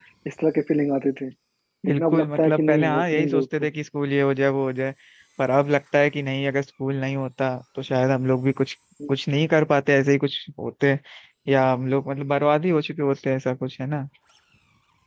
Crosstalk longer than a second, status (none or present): present